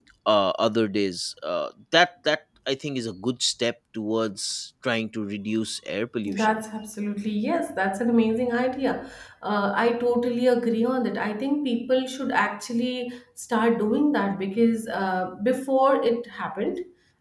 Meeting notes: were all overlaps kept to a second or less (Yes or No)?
Yes